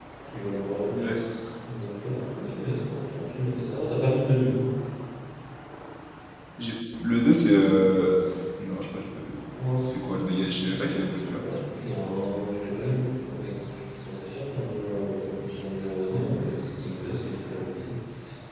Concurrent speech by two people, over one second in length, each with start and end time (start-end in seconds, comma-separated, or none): none